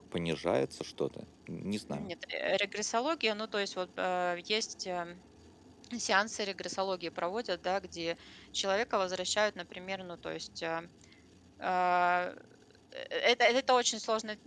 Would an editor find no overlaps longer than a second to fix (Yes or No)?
Yes